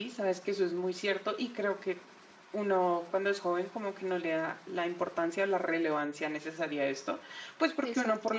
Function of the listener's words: listening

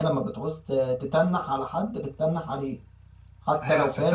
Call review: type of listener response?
taking over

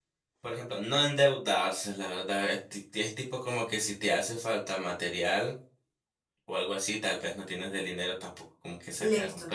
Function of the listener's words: listening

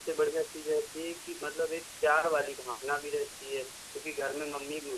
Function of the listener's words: listening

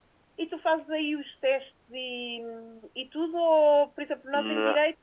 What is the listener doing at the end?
listening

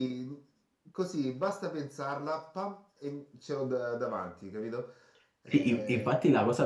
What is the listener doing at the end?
taking over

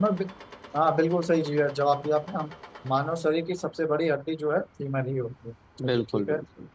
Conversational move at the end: taking over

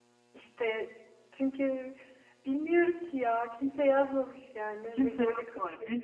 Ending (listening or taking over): taking over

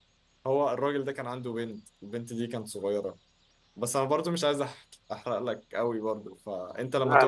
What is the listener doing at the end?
listening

